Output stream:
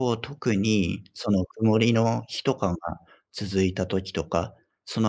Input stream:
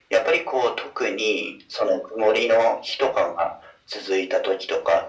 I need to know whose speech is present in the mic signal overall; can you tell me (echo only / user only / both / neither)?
echo only